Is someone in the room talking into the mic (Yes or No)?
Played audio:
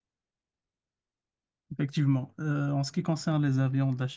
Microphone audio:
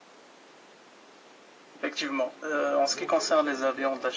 Yes